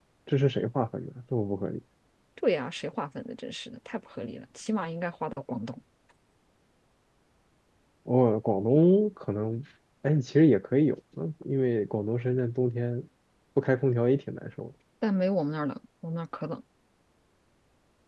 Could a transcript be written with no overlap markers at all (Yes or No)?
Yes